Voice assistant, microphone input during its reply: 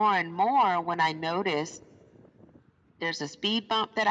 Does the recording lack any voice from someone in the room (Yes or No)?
Yes